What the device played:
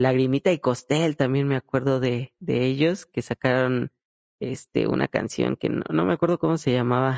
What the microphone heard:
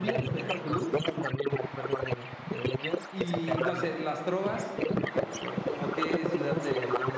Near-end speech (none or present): present